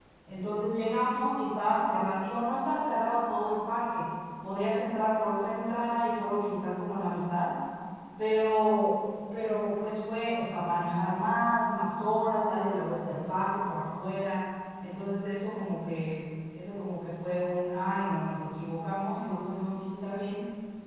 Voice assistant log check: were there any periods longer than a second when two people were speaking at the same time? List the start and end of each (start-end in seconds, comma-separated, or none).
none